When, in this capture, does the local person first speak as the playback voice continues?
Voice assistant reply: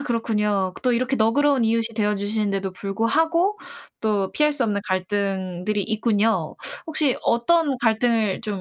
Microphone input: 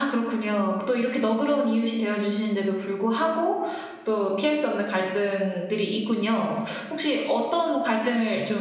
none

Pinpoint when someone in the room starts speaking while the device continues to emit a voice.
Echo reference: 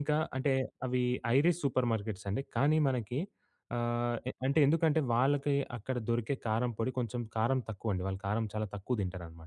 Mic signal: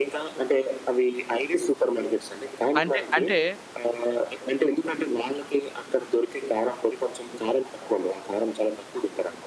2.8 s

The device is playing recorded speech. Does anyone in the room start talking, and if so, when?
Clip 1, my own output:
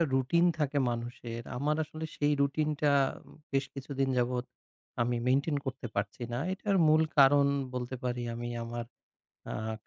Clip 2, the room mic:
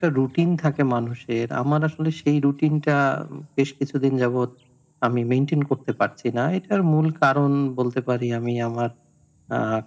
none

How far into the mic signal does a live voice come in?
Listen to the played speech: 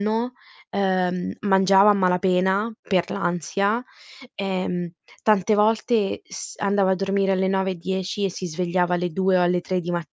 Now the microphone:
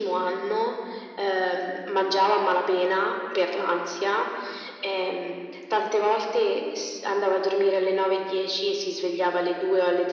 none

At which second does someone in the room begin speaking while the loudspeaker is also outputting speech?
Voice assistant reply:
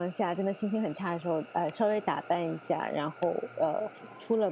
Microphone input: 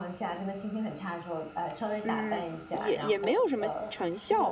2.0 s

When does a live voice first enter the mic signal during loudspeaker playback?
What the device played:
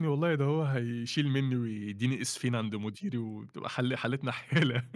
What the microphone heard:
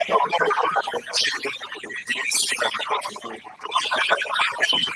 none

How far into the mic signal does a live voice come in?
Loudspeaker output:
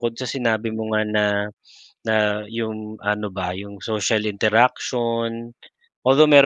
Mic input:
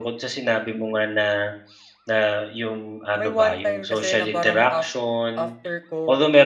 3.2 s

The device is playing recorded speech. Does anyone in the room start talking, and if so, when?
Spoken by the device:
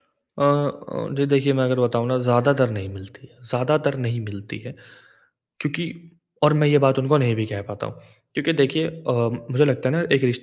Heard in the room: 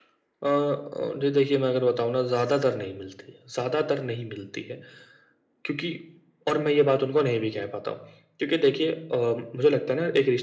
none

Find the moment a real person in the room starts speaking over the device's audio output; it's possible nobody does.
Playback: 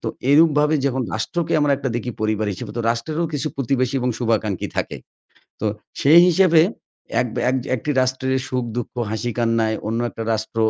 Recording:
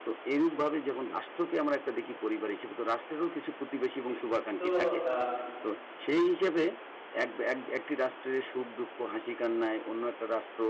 4.0 s

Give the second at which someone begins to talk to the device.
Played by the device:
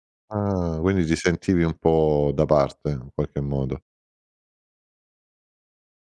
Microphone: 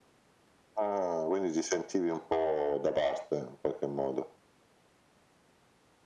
none

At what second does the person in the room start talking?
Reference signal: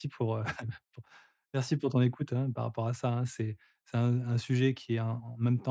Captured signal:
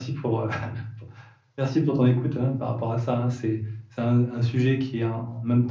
none

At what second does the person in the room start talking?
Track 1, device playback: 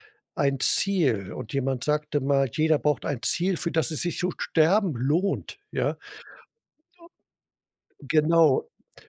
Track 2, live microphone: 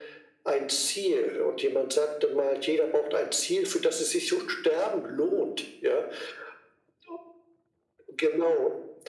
none

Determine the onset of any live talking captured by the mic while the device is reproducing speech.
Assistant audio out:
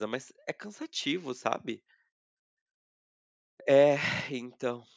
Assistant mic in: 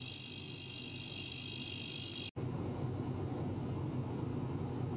none

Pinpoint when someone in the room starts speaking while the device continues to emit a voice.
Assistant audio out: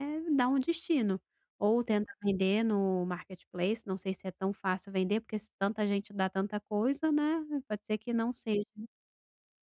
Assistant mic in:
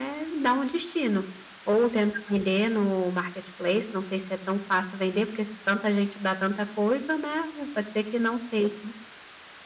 none

